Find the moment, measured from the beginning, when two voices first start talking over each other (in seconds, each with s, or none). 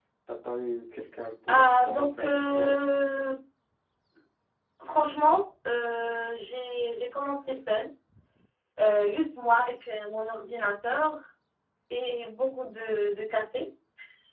1.5 s